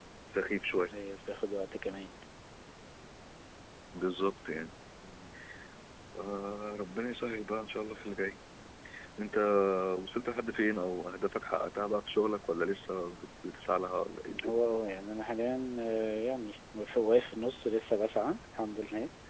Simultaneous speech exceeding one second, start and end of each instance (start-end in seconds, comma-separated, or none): none